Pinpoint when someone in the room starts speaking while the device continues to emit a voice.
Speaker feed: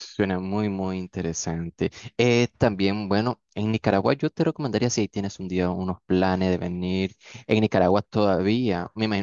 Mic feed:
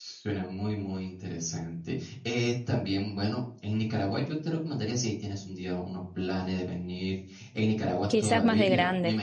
8.1 s

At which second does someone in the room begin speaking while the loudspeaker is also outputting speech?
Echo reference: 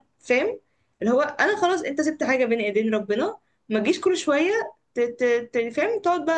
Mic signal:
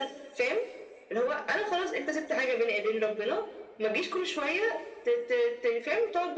none

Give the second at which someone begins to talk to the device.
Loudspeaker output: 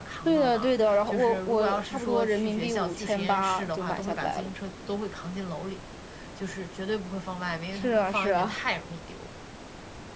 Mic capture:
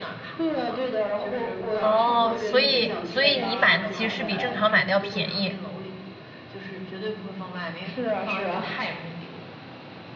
1.8 s

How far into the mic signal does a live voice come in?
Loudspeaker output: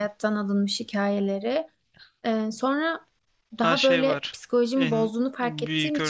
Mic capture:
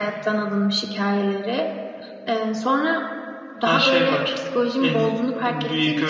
none

